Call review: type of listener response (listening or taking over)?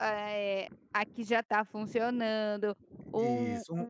listening